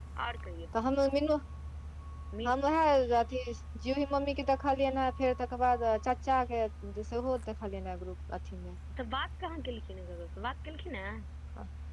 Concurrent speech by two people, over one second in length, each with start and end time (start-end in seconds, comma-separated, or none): none